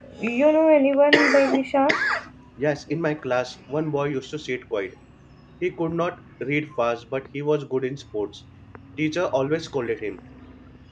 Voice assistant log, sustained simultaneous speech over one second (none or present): none